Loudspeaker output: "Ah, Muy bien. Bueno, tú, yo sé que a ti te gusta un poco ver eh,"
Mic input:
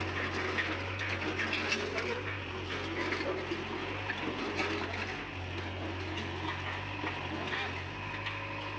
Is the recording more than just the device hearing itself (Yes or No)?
No